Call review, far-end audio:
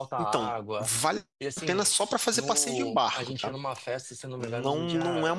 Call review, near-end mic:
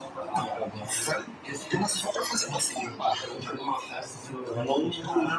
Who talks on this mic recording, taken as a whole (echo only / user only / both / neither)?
echo only